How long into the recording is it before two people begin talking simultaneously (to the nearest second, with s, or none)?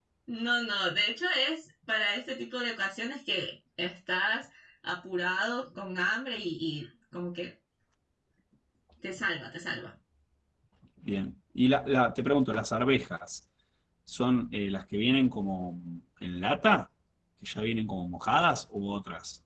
none